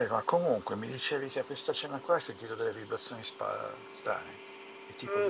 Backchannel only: No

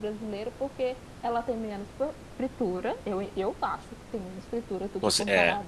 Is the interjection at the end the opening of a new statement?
No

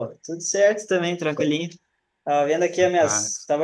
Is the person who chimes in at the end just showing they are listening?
Yes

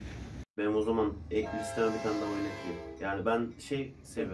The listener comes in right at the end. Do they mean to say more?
No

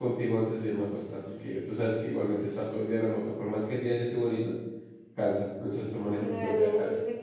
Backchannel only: No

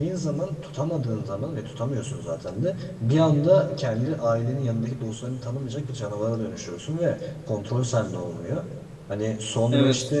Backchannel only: Yes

